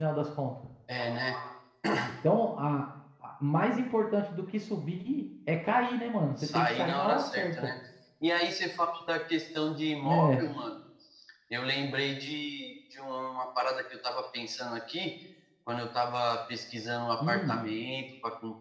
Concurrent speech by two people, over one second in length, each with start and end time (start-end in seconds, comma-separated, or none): 6.4-7.7